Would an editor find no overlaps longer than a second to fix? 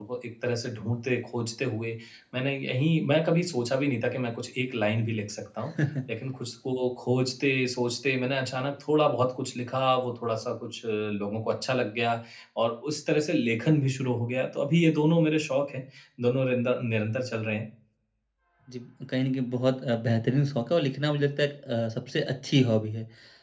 Yes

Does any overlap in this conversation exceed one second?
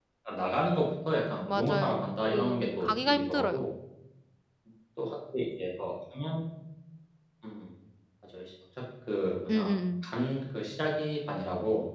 Yes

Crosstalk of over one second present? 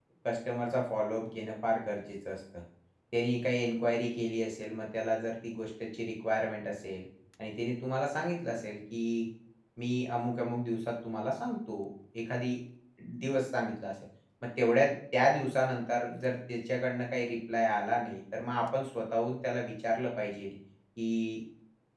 No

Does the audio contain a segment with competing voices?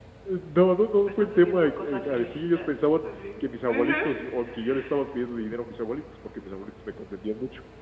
Yes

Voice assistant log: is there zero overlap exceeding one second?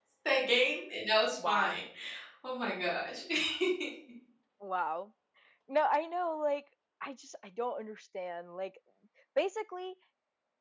Yes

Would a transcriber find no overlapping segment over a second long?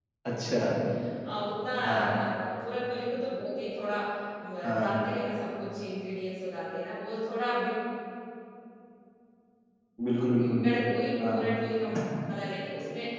Yes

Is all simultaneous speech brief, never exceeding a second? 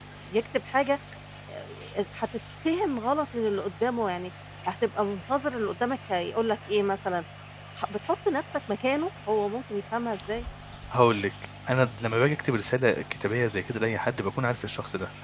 Yes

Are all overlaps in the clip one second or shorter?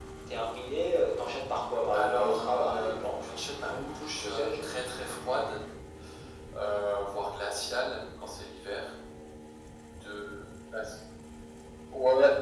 No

